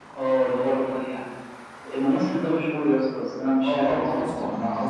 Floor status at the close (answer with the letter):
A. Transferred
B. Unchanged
A